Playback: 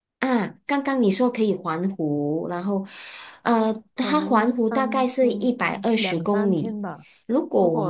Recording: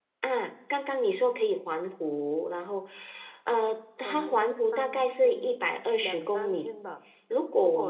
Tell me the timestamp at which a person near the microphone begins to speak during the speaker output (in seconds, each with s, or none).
none